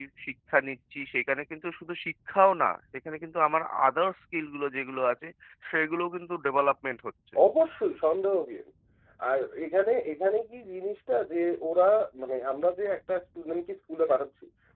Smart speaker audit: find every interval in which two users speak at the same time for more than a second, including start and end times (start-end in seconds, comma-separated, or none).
none